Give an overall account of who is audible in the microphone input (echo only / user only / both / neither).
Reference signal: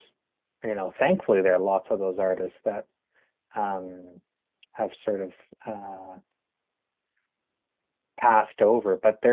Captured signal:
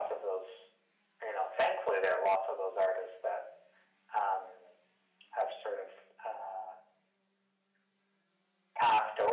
echo only